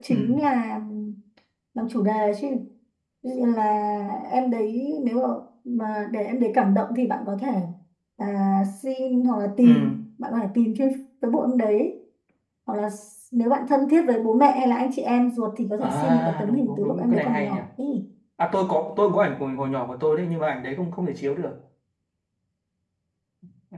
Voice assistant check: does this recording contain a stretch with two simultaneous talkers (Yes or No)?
Yes